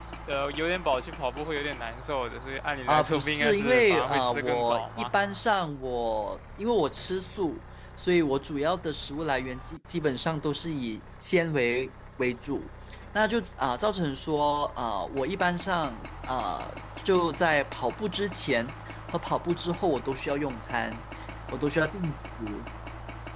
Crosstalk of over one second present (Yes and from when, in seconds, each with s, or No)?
Yes, from 2.9 s